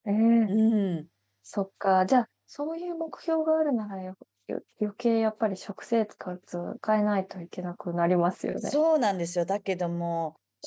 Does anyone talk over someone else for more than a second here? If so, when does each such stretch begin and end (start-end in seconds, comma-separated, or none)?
none